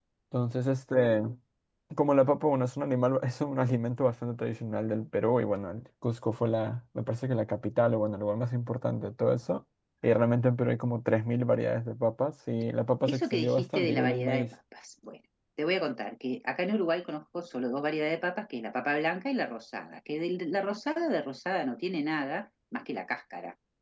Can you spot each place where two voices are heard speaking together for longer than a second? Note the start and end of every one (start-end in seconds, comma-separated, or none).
13.1-14.5